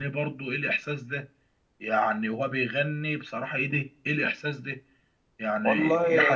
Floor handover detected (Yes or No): No